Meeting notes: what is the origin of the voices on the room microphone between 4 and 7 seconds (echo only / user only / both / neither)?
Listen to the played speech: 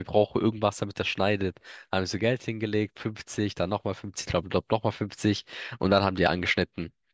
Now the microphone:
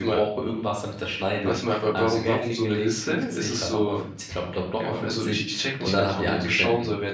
both